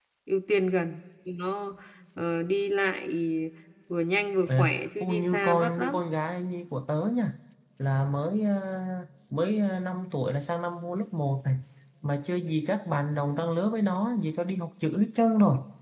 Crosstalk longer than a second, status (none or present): present